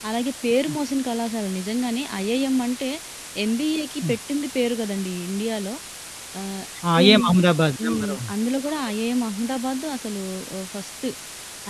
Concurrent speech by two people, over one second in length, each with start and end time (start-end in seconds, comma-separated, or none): none